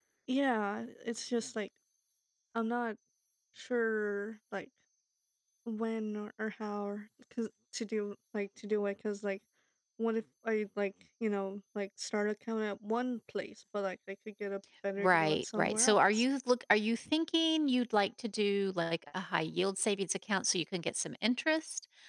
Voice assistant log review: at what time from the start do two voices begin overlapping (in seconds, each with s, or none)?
15.0 s